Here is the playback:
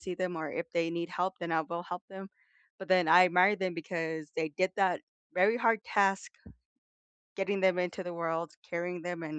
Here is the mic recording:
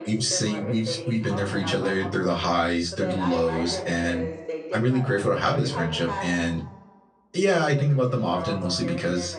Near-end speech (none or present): present